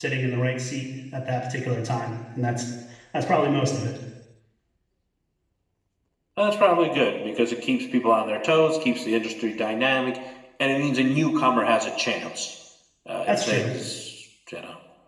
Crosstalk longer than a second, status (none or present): none